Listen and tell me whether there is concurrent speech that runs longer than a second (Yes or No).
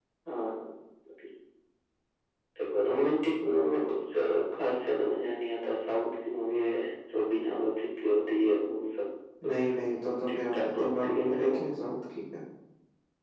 Yes